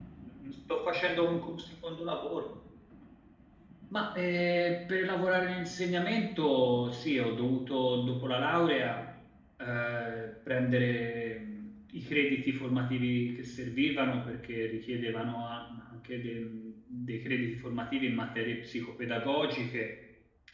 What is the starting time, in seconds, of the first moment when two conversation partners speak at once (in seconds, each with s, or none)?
none